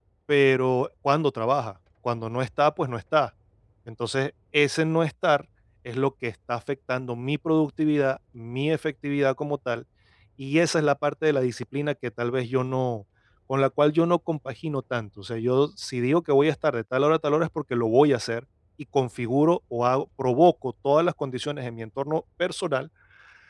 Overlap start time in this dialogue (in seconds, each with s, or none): none